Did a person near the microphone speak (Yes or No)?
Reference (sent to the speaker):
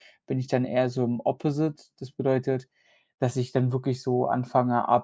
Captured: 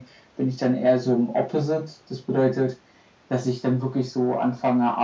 No